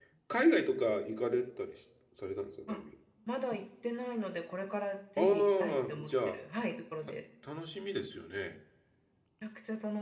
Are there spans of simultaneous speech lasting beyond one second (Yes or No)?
Yes